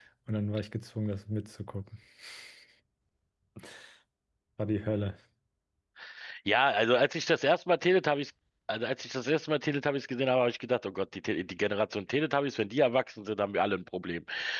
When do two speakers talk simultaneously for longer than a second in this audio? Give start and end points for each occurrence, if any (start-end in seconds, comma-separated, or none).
none